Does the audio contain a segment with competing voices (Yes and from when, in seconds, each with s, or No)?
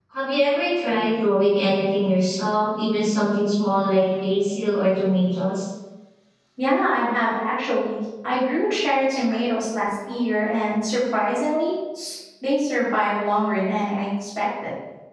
No